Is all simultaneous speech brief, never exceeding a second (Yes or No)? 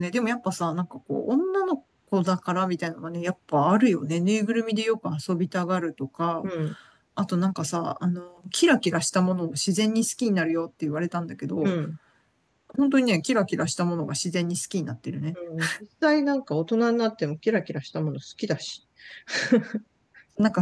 Yes